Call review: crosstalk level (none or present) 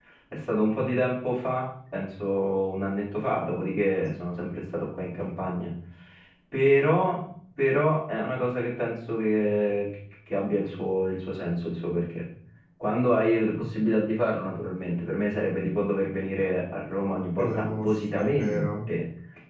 present